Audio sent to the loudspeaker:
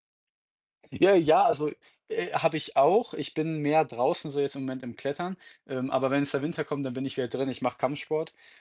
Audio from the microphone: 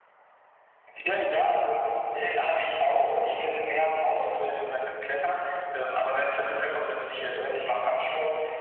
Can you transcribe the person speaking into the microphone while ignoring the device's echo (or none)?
none